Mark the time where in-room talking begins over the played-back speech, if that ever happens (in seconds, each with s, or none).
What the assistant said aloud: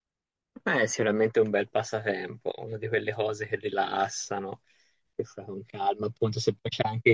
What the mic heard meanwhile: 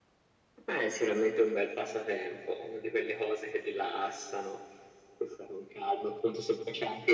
none